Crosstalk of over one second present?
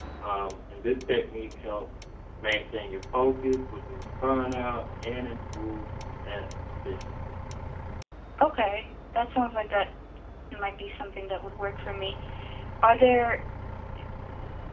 No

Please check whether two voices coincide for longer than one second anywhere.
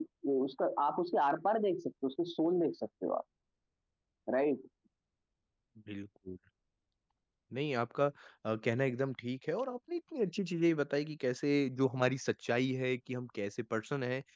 No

